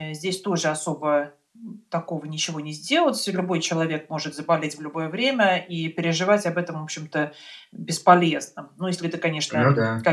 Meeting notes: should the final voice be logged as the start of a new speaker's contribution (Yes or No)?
No